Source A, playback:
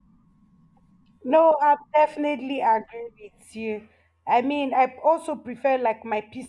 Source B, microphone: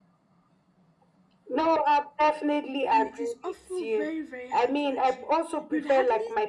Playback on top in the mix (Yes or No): Yes